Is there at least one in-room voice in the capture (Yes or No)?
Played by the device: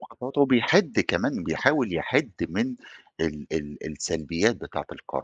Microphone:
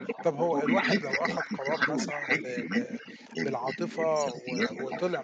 Yes